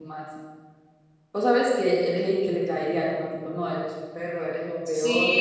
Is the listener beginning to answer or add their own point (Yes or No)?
Yes